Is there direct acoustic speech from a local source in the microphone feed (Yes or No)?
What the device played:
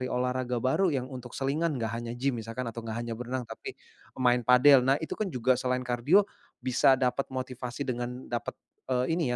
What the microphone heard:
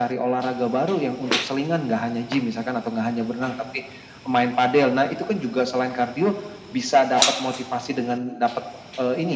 No